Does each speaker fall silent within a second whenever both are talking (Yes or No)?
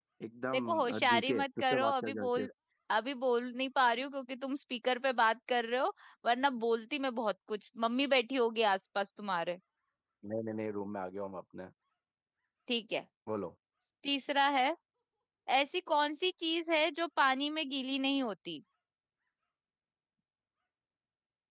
No